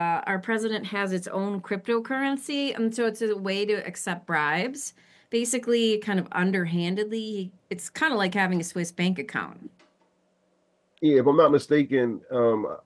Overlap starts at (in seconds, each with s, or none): none